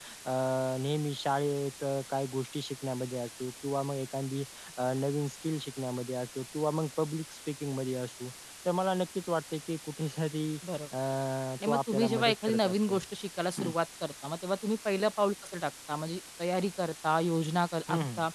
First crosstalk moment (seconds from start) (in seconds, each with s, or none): 11.7 s